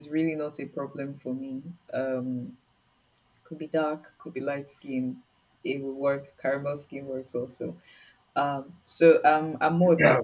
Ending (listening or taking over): taking over